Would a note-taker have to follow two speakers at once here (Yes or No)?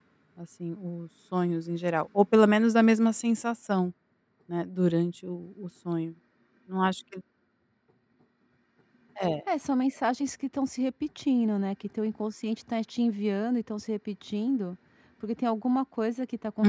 No